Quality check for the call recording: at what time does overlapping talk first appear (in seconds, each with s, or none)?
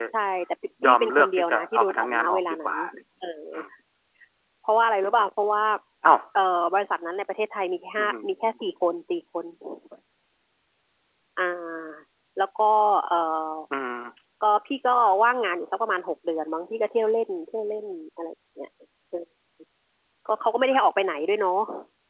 0.8 s